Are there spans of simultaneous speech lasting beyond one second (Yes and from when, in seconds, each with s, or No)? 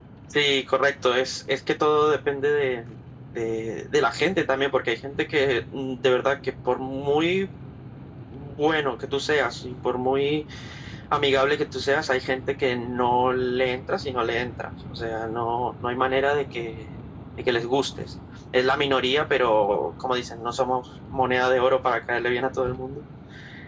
No